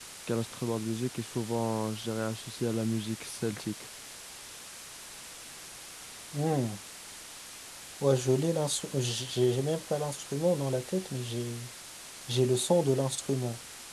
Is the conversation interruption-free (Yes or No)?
Yes